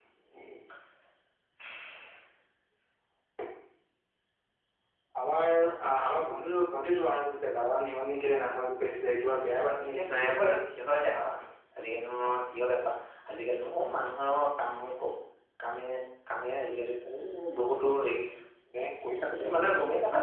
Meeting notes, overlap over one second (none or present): present